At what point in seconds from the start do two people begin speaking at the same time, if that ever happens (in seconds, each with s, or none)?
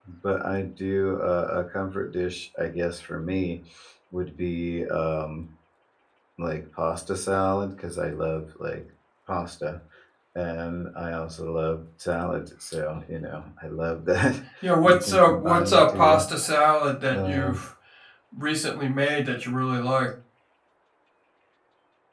14.8 s